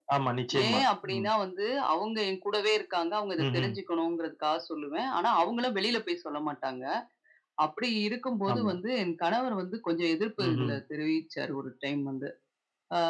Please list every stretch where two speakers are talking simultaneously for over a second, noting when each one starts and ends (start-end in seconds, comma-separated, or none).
none